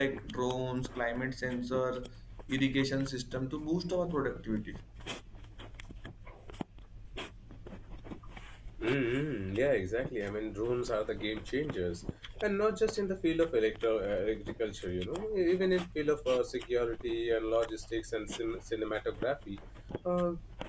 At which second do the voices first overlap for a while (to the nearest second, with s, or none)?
none